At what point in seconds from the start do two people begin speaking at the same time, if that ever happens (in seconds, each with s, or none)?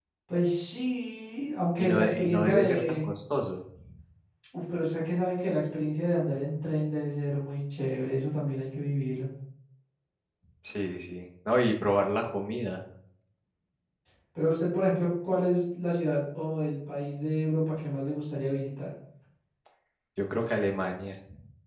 1.8 s